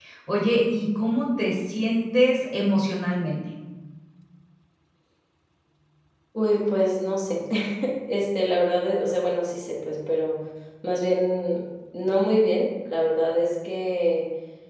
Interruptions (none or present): none